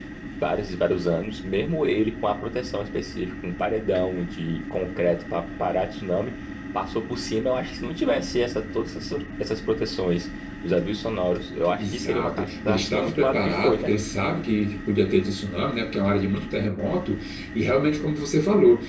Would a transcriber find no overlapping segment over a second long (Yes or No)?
No